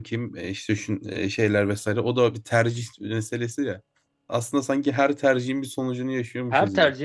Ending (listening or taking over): taking over